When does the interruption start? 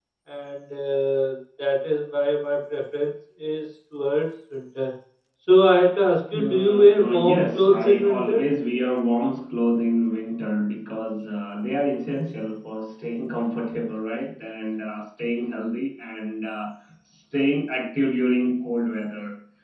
6.3 s

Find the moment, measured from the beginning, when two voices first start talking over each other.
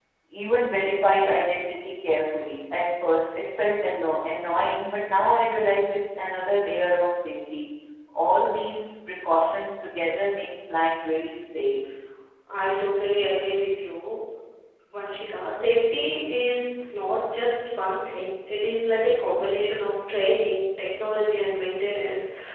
none

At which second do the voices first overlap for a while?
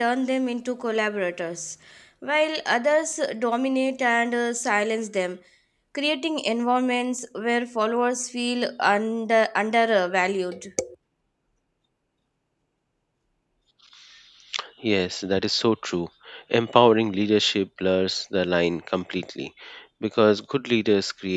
none

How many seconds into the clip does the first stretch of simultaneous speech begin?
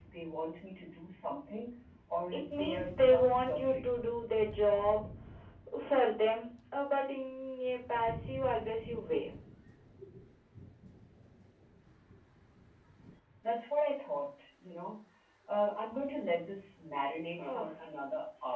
2.4 s

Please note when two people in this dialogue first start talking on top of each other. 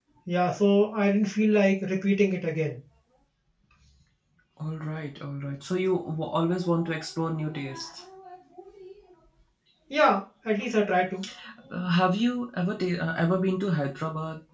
none

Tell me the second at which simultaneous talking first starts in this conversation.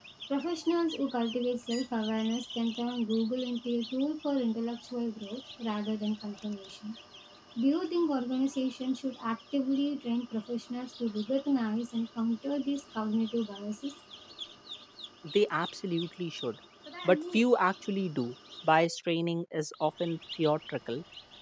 none

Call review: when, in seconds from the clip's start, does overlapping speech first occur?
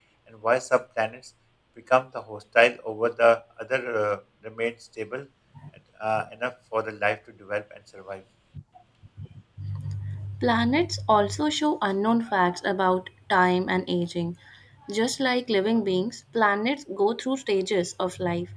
none

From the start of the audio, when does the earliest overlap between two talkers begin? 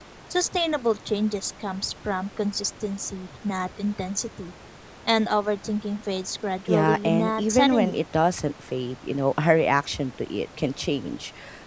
6.7 s

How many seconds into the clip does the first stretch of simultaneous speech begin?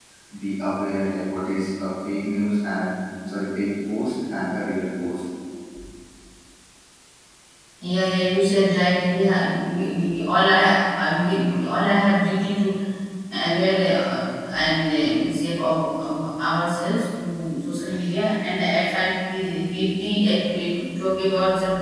none

